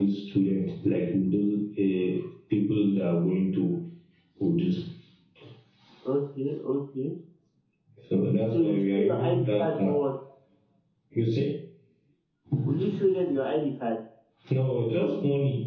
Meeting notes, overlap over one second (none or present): present